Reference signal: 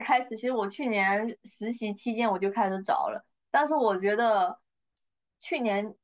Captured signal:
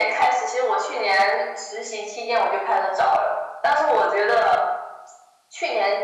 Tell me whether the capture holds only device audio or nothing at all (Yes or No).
Yes